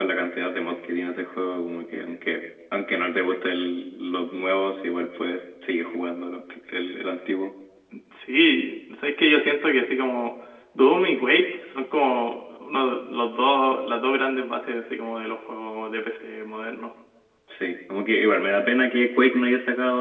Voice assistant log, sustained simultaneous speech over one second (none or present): none